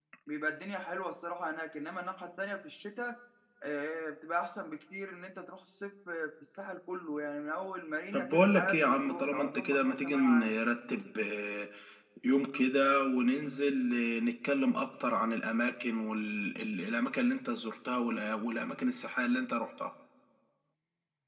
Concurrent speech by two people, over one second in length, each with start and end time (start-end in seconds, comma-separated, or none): 8.1-10.6